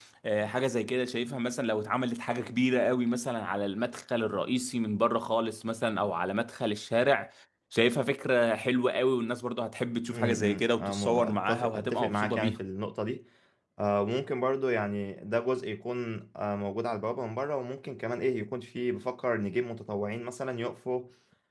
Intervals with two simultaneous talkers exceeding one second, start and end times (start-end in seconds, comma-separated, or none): 10.1-12.6